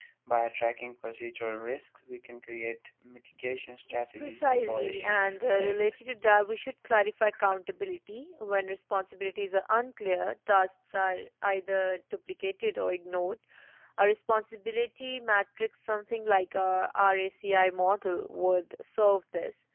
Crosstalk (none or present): present